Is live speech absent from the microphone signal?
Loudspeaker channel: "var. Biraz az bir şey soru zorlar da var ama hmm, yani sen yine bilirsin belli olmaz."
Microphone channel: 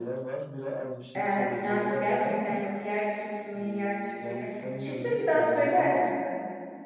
No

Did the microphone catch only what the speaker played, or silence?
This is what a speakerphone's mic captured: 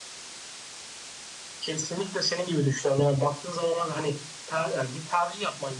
Yes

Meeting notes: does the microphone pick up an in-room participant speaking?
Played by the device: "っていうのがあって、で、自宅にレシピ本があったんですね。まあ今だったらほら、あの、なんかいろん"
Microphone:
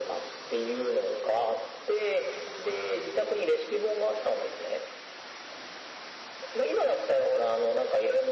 No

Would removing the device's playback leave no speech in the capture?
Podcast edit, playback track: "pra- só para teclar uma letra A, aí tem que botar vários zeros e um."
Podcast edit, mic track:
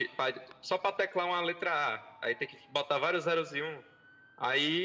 Yes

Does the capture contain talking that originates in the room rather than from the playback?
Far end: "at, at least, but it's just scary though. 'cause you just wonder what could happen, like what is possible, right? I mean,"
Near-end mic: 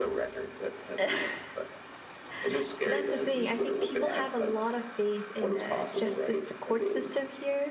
Yes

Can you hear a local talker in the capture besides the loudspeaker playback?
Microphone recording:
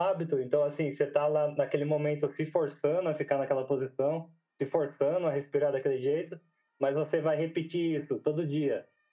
No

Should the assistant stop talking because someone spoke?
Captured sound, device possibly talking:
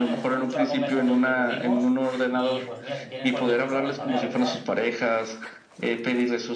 Yes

